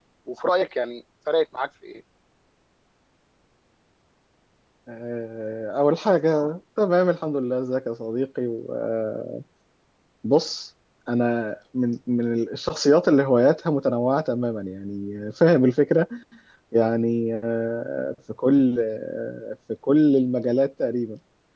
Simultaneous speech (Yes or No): No